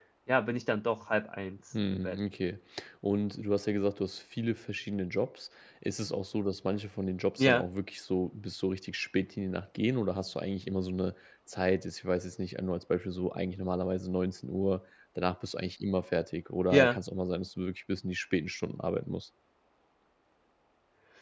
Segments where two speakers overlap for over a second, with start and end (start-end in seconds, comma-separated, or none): none